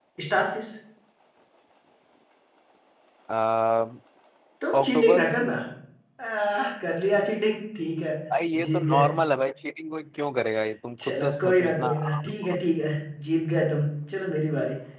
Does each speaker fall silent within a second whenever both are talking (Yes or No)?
No